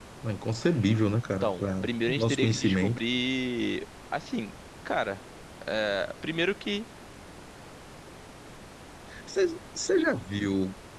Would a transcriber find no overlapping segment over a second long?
No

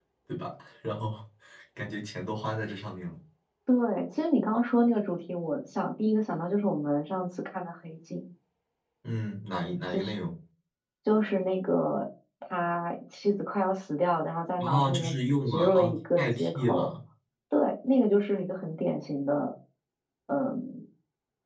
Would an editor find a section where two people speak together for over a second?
Yes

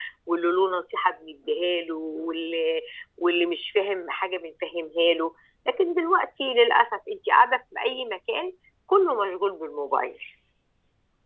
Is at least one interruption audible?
No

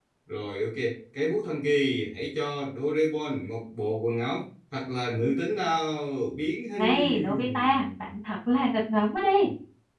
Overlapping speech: Yes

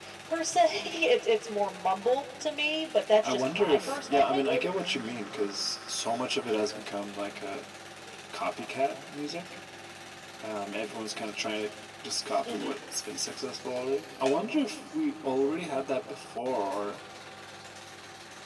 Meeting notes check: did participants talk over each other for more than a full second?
Yes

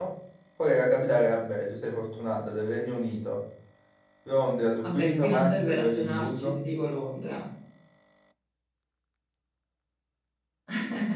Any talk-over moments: Yes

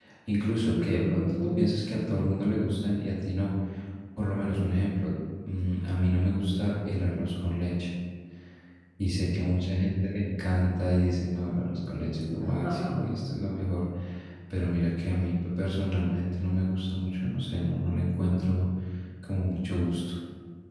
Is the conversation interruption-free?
No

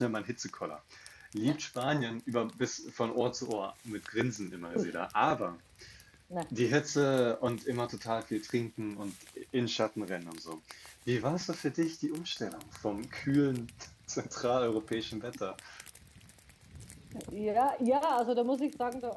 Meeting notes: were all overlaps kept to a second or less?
Yes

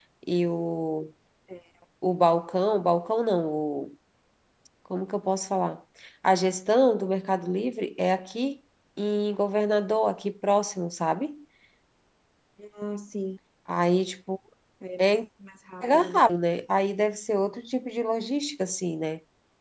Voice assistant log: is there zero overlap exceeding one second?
Yes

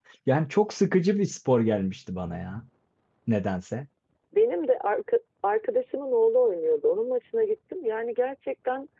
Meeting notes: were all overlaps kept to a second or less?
Yes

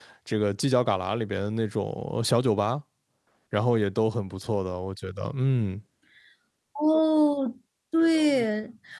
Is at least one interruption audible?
No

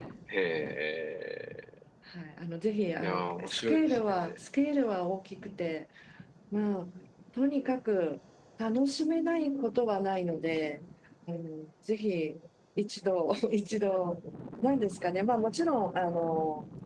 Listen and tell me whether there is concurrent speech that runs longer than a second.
Yes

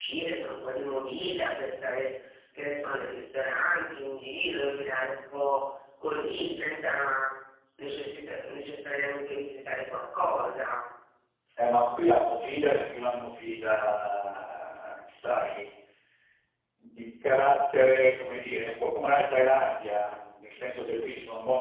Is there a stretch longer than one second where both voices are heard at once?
No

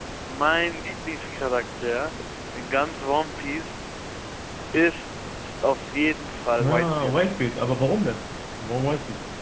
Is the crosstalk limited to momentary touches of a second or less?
Yes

